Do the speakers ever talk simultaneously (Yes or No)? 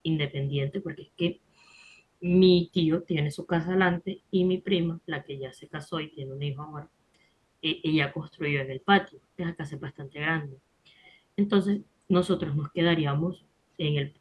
No